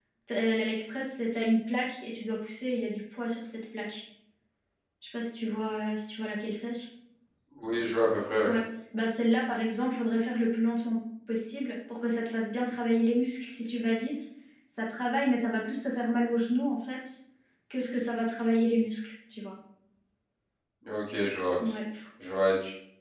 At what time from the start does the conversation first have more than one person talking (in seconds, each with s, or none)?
none